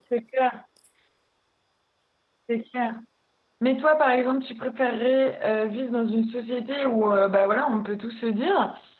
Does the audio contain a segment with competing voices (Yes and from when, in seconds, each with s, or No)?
No